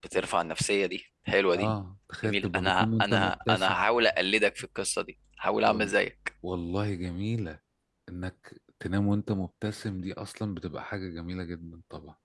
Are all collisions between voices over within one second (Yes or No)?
No